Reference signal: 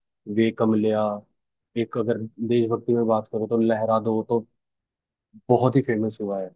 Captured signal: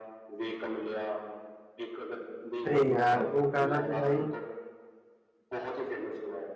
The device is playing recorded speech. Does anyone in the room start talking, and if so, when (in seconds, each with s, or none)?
2.7 s